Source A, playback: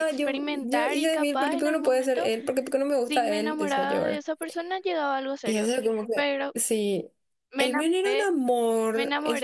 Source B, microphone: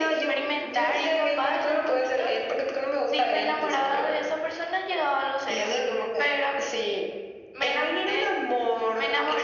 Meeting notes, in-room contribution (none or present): none